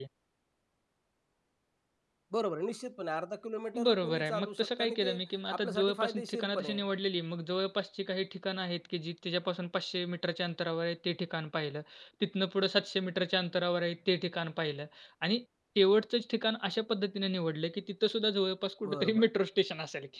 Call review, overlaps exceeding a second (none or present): present